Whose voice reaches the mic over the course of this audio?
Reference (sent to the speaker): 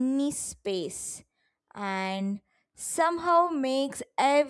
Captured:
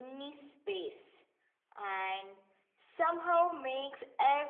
echo only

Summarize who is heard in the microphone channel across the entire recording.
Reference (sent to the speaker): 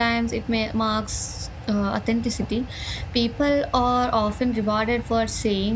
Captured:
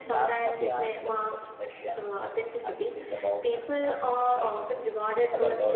both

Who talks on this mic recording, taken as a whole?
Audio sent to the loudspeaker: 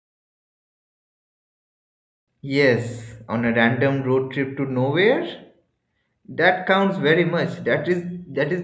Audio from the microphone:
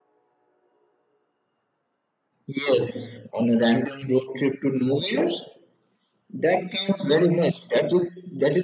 echo only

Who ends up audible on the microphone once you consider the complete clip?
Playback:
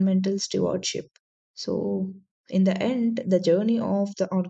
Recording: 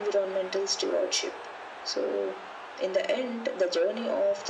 echo only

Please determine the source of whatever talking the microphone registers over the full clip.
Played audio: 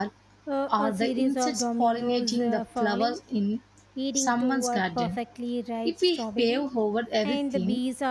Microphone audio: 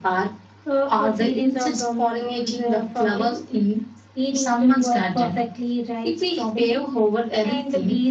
echo only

